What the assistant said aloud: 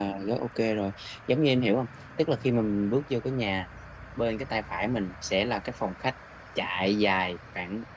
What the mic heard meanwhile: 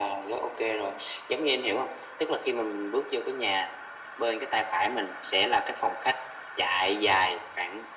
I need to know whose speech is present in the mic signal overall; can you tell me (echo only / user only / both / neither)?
echo only